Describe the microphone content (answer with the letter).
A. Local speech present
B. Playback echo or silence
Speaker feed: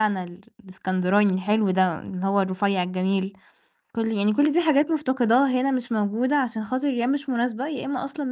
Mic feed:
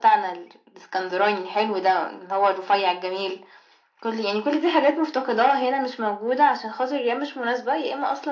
B